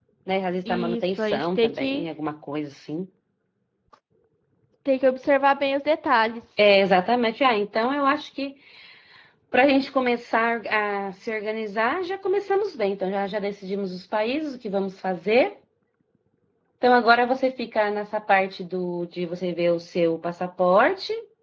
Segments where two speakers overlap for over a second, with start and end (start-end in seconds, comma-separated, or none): 0.7-2.0